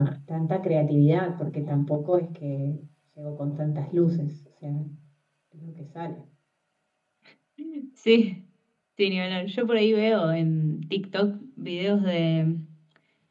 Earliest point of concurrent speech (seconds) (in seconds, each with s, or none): none